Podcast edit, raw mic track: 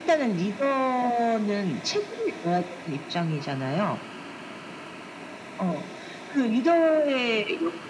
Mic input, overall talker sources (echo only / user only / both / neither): echo only